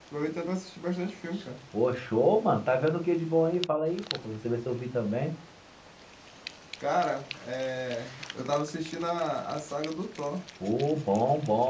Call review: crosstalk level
none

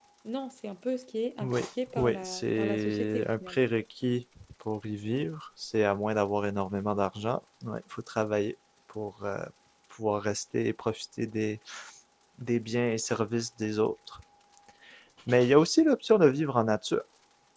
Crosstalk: present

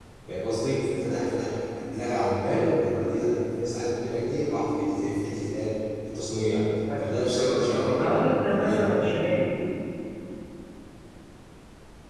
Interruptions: present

